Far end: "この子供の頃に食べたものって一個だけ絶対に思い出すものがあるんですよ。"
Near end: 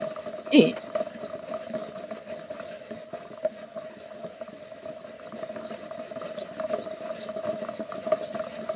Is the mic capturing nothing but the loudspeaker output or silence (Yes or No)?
No